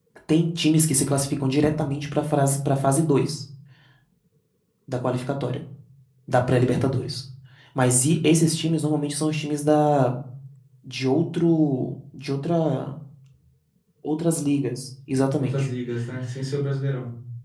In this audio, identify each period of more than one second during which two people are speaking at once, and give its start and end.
none

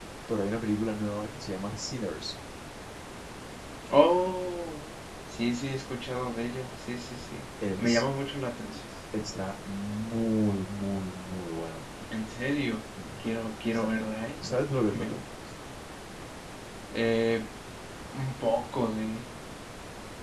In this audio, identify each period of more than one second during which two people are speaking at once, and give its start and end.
none

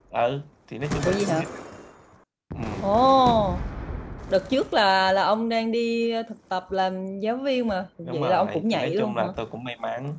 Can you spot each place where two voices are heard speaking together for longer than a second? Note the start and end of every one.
8.1-9.3

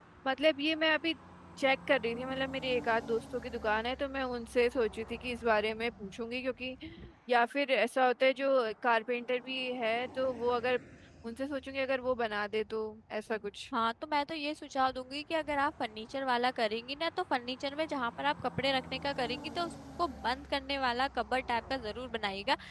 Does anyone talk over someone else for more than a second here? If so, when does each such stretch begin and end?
none

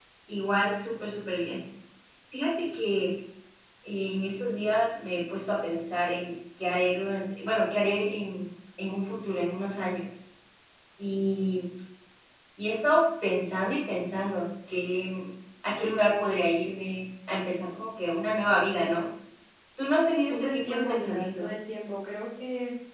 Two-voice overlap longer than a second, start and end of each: 20.3-21.5

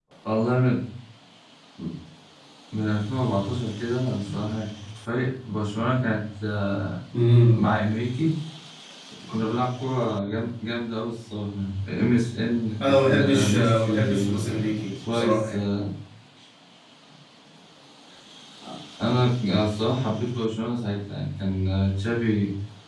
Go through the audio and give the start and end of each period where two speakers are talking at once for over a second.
12.8-15.6

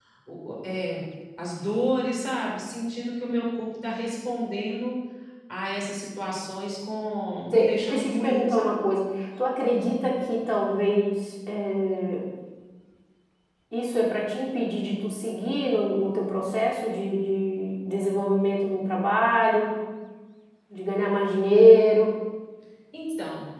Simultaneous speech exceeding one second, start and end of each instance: 7.5-8.8

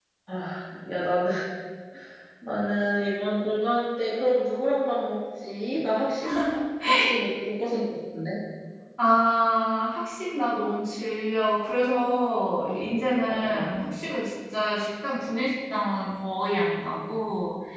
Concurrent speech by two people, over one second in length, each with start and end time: none

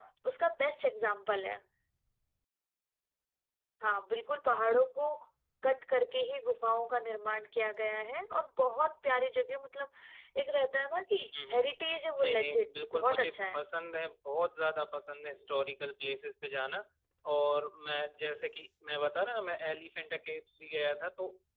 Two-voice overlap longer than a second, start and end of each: 12.2-13.6

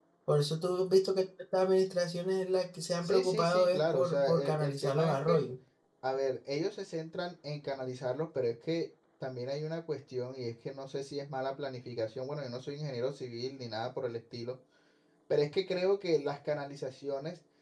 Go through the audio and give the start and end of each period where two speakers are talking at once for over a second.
3.0-5.4

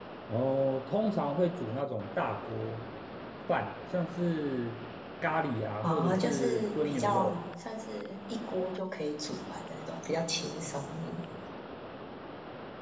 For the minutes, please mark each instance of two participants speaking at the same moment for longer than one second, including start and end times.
5.8-7.4

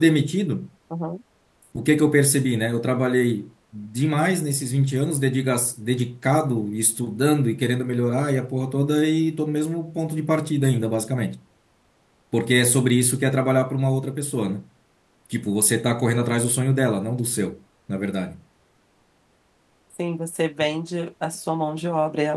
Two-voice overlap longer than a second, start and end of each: none

